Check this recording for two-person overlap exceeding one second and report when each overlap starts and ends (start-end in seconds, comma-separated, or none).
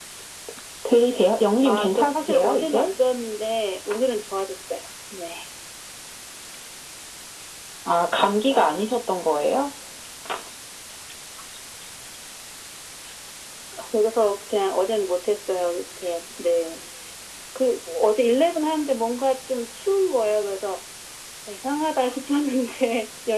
1.6-2.9